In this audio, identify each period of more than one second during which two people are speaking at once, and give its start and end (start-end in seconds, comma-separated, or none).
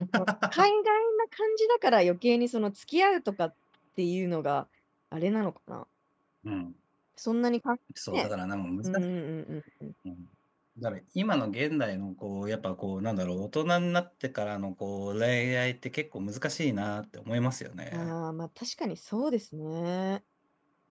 none